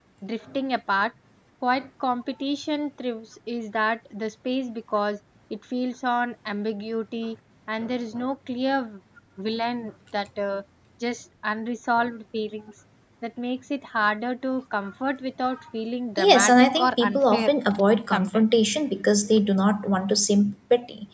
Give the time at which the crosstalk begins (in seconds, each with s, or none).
16.2 s